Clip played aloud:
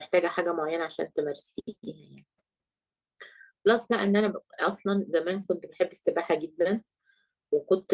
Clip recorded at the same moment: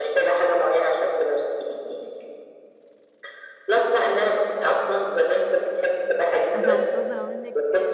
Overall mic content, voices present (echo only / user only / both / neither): both